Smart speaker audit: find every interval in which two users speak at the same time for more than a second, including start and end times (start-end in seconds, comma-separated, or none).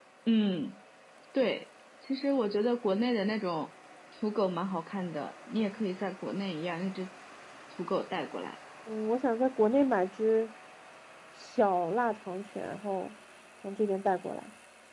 none